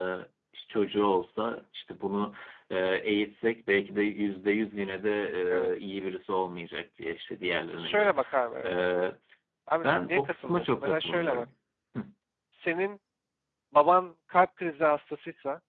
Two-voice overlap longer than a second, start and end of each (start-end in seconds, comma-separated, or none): 9.8-11.4